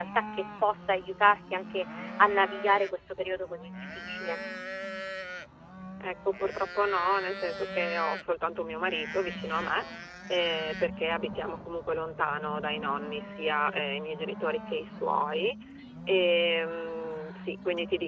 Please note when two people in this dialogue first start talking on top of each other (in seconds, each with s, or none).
none